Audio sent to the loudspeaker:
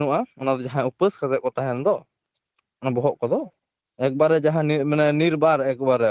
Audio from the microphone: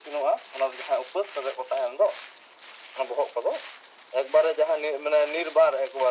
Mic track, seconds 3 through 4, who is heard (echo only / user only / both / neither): echo only